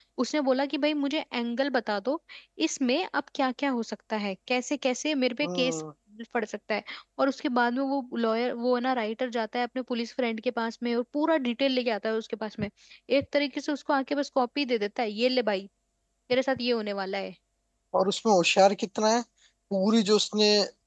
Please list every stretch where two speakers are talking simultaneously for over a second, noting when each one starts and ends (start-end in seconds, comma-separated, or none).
none